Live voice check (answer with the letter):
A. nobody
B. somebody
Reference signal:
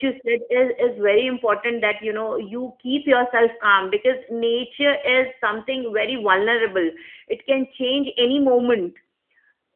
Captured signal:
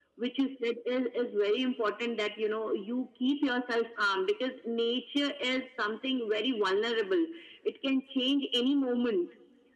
A